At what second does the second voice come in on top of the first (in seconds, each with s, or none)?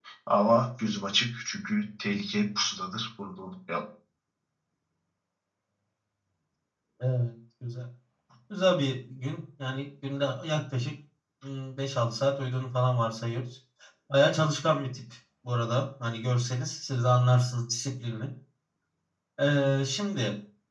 none